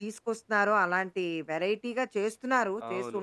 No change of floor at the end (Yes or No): No